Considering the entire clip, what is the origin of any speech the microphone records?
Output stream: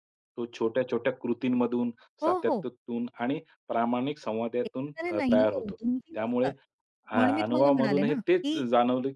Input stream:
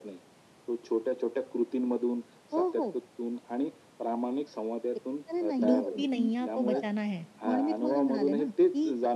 both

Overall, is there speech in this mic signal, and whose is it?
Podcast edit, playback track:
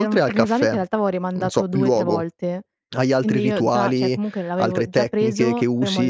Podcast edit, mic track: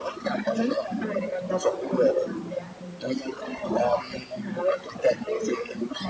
echo only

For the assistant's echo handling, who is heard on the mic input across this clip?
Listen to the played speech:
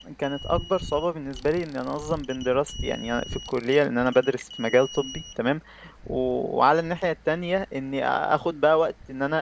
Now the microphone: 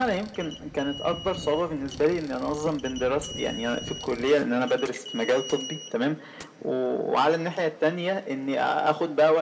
echo only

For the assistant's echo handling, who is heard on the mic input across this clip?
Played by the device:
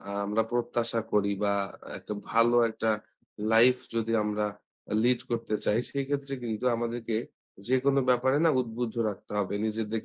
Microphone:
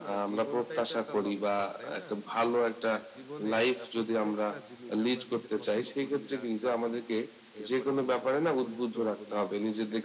both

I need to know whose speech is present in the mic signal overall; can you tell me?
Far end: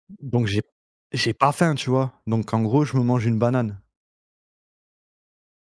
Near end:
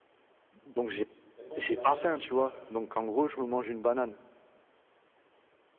both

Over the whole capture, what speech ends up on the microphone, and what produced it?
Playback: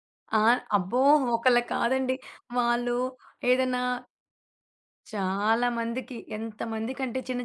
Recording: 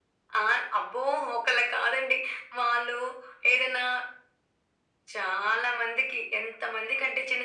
echo only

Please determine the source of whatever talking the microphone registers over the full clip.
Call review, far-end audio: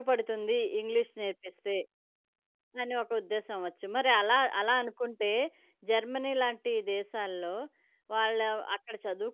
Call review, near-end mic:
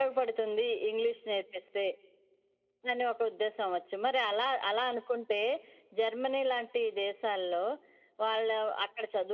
echo only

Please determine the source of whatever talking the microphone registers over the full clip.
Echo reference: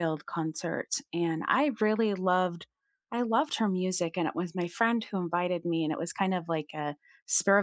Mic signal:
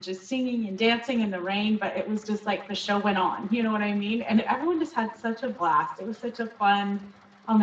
user only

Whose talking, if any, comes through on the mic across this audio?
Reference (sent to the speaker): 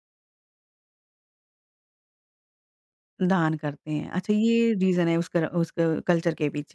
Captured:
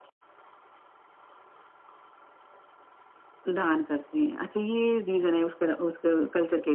echo only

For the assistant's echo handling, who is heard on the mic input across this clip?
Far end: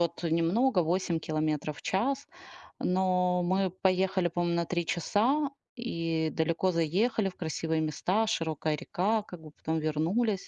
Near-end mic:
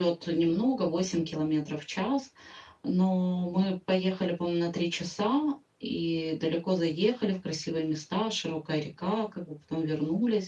echo only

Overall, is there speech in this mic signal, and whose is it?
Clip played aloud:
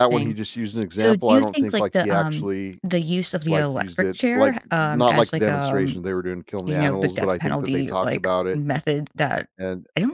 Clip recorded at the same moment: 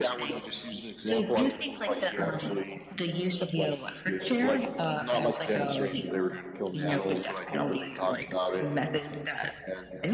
echo only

